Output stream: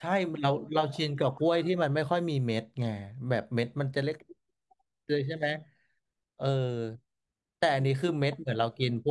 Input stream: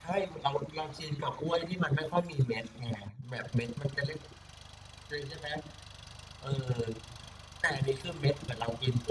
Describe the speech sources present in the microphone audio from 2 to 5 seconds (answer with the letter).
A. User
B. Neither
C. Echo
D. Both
C